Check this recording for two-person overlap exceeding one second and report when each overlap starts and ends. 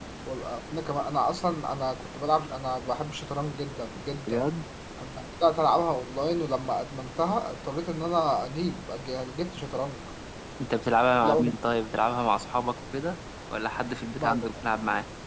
none

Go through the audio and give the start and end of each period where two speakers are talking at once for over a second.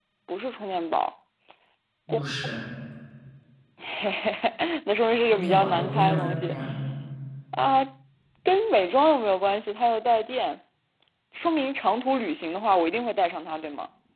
5.3-6.6

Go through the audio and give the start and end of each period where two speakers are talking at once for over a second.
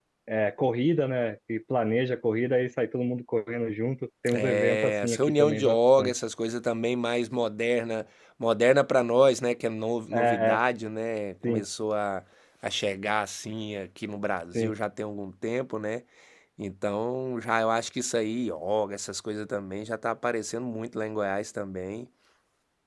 4.3-6.1

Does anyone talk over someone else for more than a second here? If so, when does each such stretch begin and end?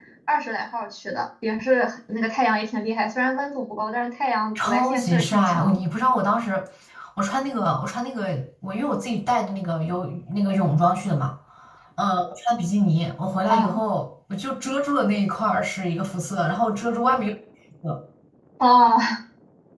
4.5-5.8

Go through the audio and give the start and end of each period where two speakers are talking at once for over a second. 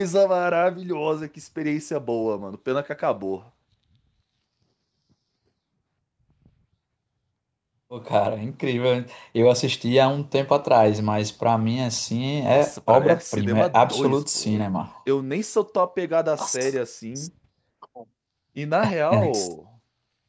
12.5-14.6

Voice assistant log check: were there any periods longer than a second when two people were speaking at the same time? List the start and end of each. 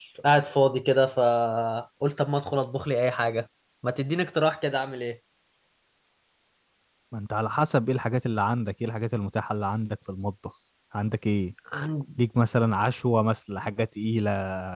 none

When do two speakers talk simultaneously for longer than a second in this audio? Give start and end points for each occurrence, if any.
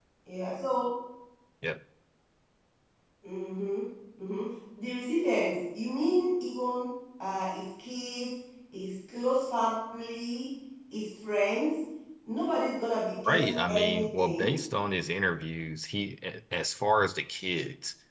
13.3-14.6

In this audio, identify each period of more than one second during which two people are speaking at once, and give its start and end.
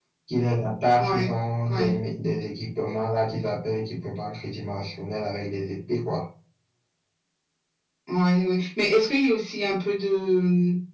none

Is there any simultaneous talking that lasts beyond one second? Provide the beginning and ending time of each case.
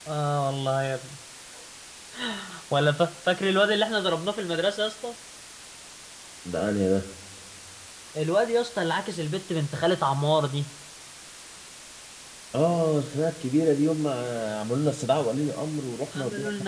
none

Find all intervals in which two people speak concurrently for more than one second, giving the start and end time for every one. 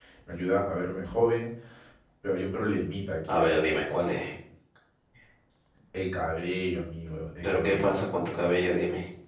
none

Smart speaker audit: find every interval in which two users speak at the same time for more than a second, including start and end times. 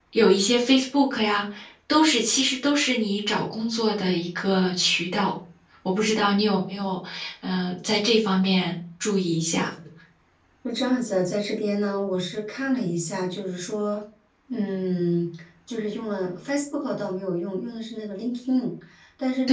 none

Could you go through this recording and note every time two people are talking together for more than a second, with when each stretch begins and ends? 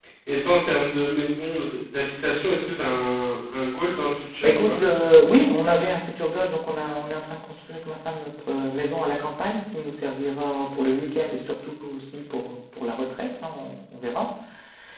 none

